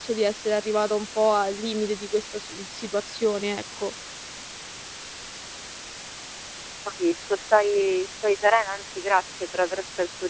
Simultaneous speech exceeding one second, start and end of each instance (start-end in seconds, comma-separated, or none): none